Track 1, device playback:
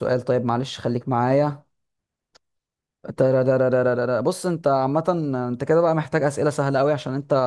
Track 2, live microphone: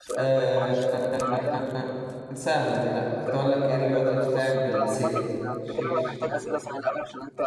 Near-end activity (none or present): present